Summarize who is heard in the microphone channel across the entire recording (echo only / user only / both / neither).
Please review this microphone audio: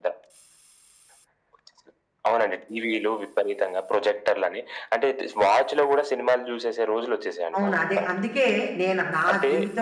both